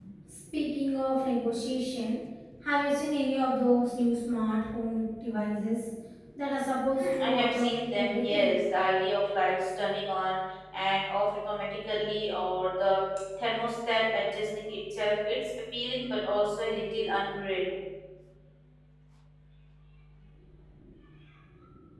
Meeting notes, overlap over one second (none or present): present